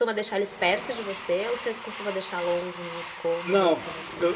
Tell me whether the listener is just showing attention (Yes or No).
No